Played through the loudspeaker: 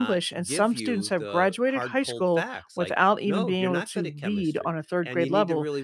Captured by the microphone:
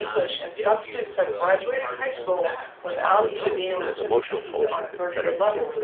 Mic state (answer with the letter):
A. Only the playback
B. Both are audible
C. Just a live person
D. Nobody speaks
B